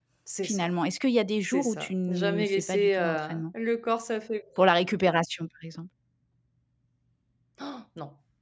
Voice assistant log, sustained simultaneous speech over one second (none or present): present